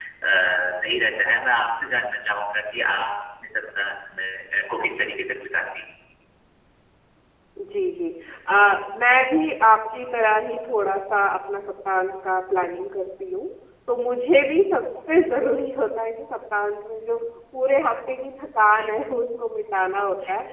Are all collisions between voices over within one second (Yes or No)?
Yes